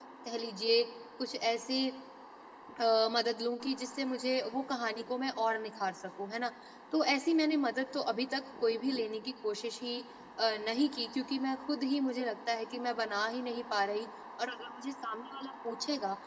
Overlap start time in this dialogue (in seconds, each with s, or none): none